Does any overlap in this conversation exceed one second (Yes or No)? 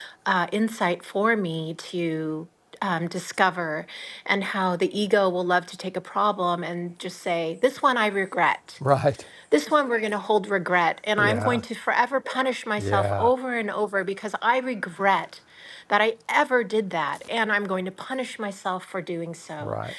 No